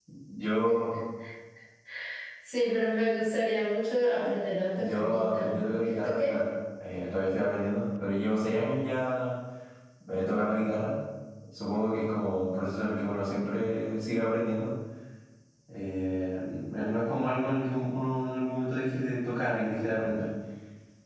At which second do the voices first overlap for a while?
4.8 s

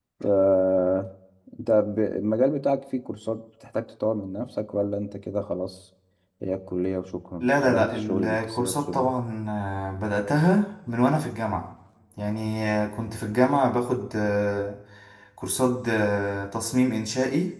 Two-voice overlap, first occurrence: 7.4 s

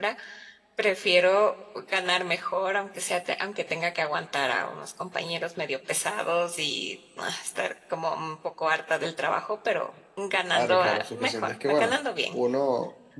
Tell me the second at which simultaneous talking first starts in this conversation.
10.5 s

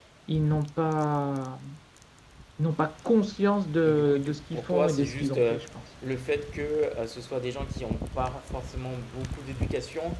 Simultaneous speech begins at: 3.9 s

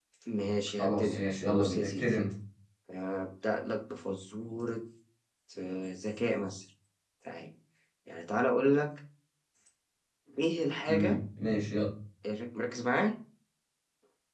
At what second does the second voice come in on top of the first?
0.8 s

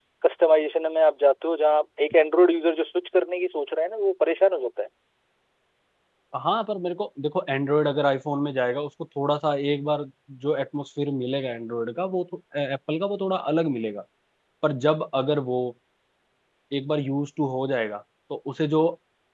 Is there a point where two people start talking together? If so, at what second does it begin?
none

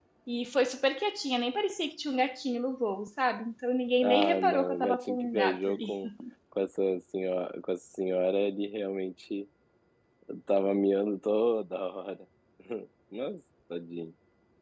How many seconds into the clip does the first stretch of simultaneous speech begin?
4.0 s

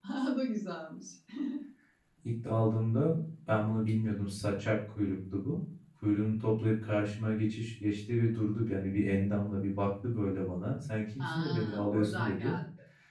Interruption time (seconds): 11.2 s

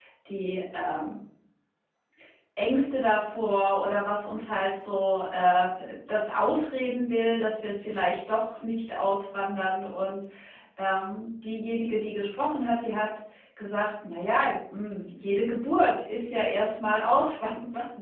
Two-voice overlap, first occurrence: none

